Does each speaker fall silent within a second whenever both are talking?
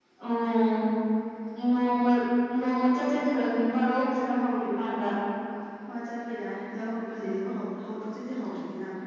Yes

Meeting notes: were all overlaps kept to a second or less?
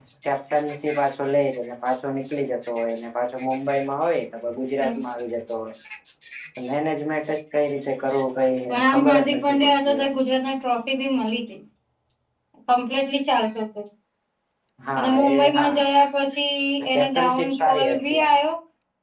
No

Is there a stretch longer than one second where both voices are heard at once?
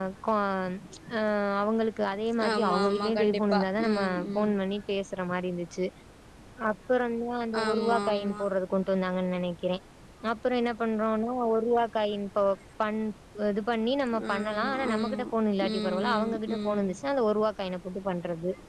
Yes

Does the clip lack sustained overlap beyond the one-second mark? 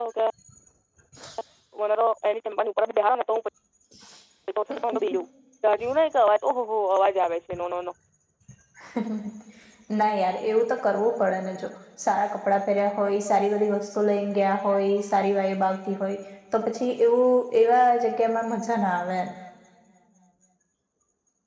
Yes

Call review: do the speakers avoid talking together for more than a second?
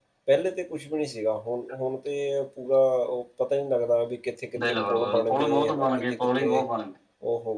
No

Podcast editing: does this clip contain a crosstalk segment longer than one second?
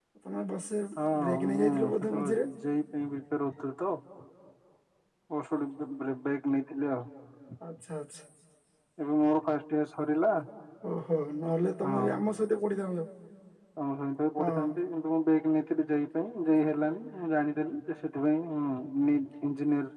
Yes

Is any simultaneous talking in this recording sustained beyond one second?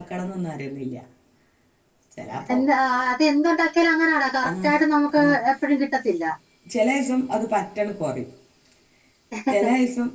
No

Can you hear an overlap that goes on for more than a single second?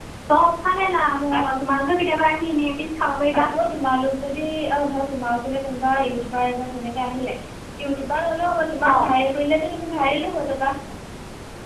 No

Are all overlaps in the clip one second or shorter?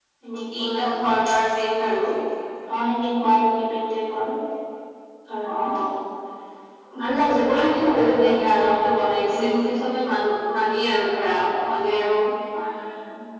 No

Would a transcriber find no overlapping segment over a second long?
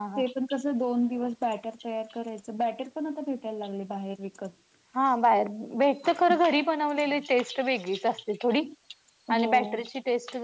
Yes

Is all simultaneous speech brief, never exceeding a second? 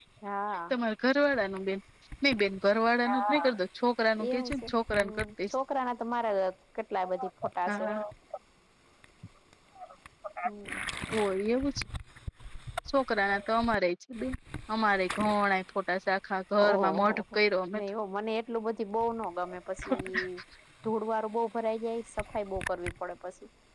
No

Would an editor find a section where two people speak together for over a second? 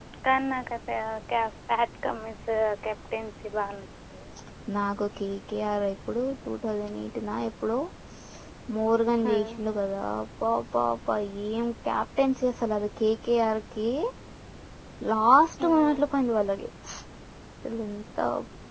No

